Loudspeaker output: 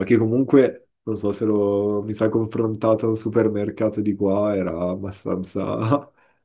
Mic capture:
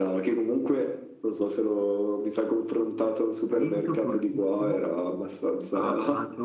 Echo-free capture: No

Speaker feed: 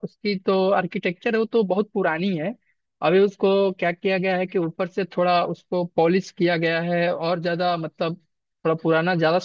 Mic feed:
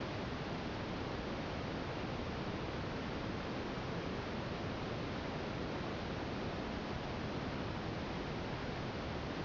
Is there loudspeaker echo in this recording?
No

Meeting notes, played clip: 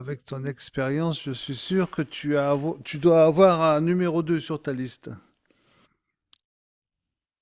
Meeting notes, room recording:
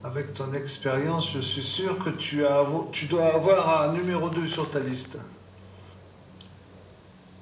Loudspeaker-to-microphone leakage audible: Yes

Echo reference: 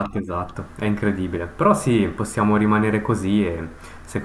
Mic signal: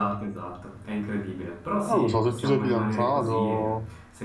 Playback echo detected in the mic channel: Yes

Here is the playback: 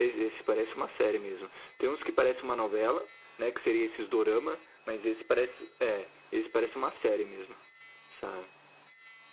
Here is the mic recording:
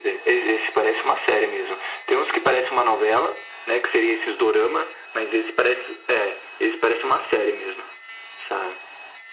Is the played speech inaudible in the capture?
No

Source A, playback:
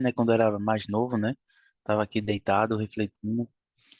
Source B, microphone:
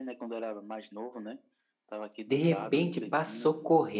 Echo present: Yes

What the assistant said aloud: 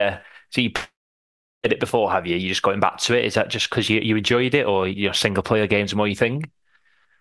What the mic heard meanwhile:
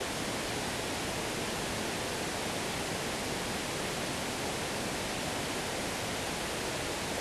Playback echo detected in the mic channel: No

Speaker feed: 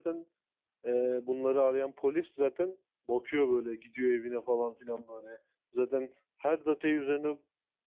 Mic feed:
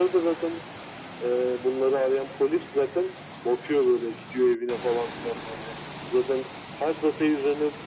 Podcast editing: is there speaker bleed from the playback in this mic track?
Yes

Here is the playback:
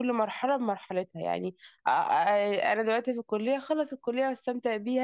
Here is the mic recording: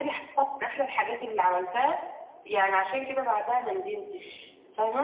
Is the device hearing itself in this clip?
No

